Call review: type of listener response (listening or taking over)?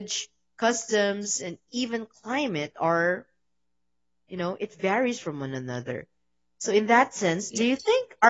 listening